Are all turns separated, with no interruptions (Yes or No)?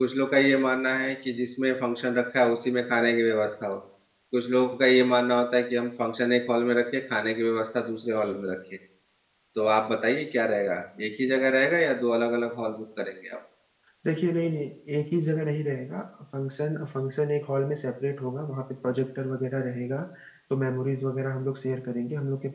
Yes